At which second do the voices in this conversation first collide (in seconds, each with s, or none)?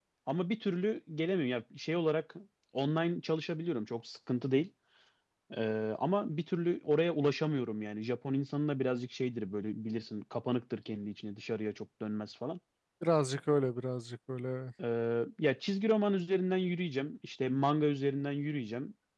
none